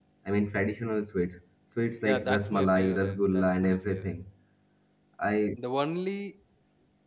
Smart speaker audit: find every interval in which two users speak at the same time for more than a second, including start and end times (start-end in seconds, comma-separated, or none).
2.0-4.2